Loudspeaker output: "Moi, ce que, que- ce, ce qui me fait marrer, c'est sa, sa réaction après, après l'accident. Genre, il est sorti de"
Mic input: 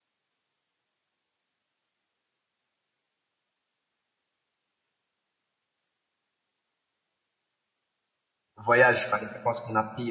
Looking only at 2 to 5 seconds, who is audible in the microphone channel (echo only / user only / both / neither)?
neither